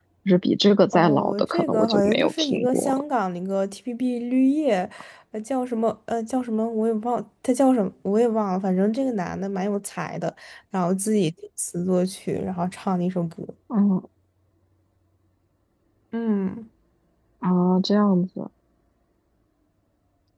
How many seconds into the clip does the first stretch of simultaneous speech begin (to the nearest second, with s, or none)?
1 s